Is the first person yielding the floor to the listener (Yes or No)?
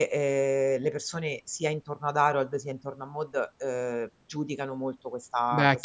Yes